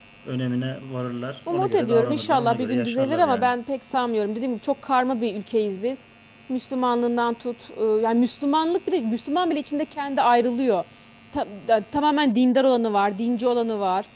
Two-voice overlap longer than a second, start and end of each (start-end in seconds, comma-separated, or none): 1.5-3.5